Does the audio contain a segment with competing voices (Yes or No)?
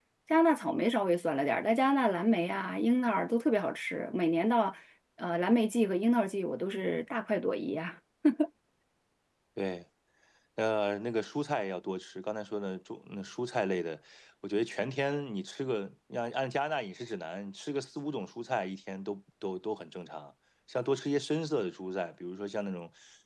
No